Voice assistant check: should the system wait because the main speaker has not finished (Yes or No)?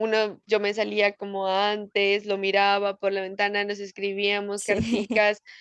Yes